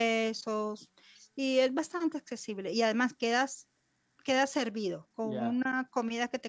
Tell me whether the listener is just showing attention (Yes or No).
Yes